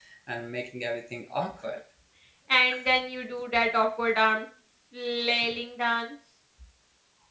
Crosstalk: none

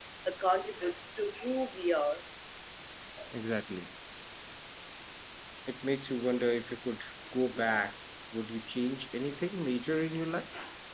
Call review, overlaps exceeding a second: none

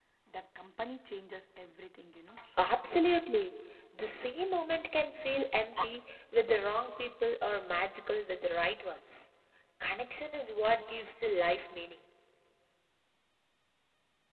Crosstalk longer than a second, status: none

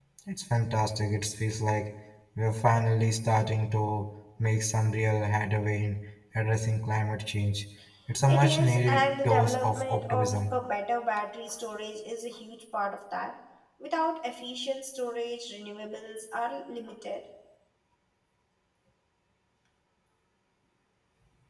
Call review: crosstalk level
present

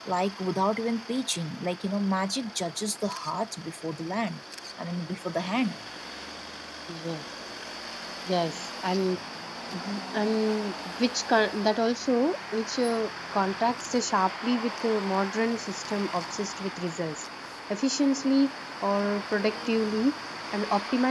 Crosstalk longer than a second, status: none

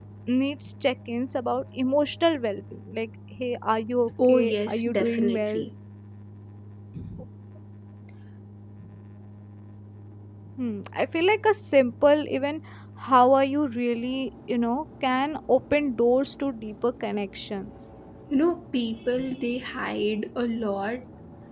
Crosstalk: present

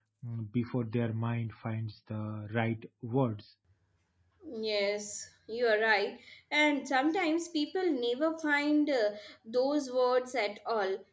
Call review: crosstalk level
none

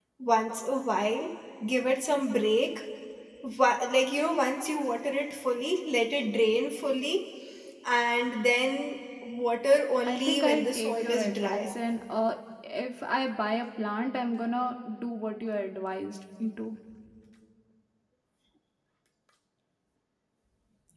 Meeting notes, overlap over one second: present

